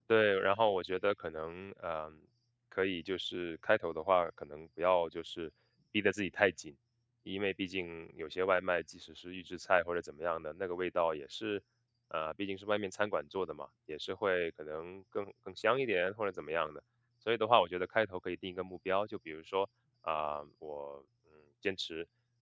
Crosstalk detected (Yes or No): No